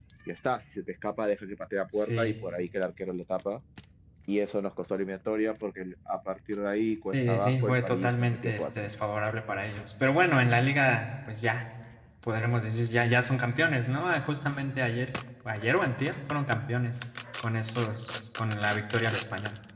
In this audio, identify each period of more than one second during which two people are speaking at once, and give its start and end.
7.1-8.9

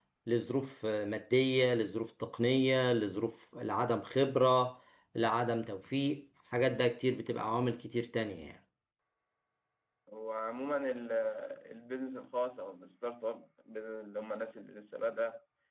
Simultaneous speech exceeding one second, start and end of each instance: none

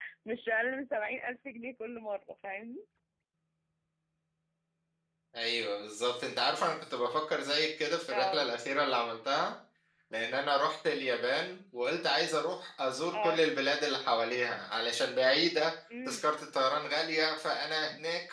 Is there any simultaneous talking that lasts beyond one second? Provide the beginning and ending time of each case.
none

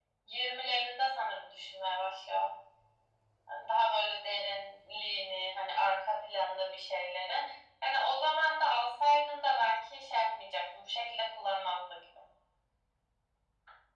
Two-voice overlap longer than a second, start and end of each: none

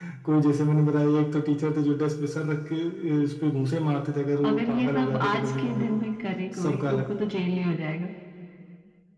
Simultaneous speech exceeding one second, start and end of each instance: 4.5-6.0

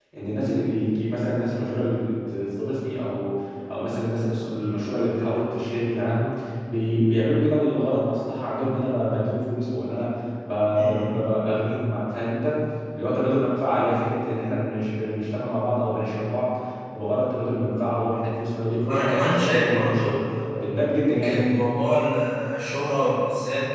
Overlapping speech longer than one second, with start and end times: 18.9-20.2

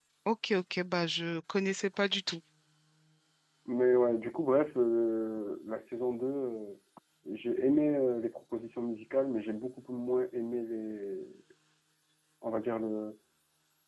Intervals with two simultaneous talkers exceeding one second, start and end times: none

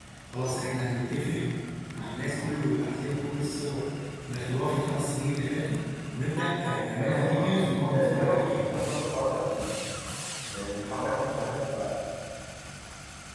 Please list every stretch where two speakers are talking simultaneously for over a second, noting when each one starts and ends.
6.7-8.7

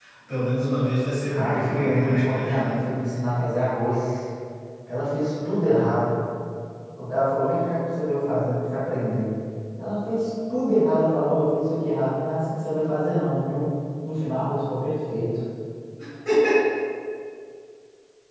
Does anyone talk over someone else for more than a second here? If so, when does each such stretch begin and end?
1.3-2.7

